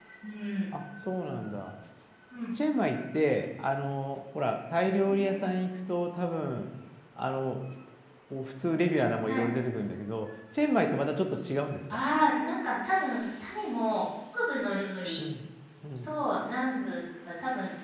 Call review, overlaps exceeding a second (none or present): none